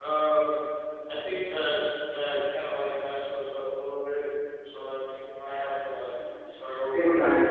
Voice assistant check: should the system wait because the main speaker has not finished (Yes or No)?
No